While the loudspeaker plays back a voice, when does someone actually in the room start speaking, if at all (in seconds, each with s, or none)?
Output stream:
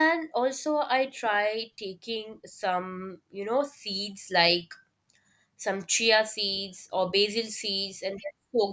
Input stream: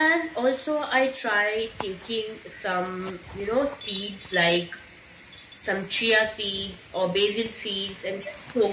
none